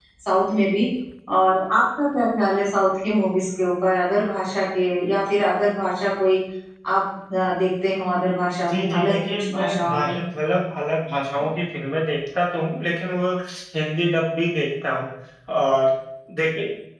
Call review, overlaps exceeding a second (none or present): present